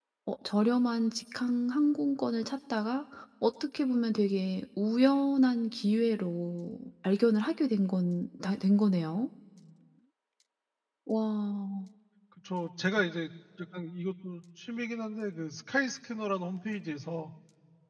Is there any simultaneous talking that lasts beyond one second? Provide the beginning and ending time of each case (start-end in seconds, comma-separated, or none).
none